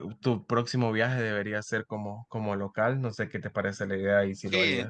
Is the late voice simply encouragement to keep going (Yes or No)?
No